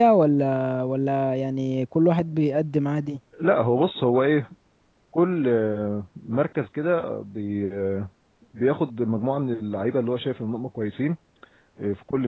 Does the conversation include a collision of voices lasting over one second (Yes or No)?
No